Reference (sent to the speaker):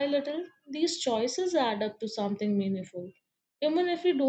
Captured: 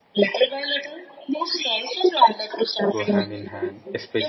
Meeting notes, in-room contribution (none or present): present